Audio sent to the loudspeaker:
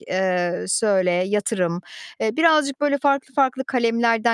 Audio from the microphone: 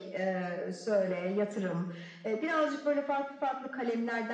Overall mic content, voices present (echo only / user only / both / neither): echo only